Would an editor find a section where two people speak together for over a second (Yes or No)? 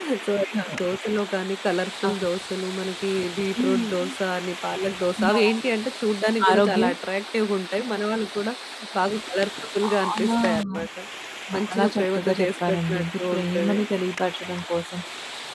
Yes